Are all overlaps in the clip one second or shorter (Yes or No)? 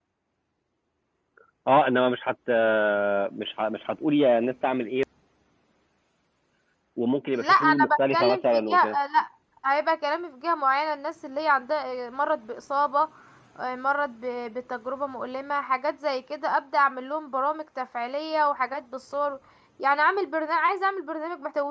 No